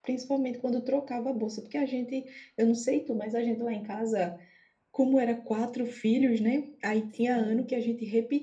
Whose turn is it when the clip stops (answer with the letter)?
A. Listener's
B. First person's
B